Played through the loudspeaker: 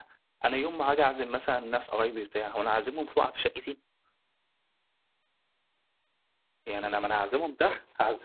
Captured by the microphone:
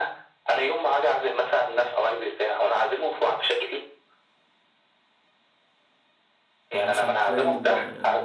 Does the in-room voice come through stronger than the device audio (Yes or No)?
No